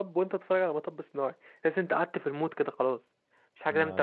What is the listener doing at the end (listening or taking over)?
taking over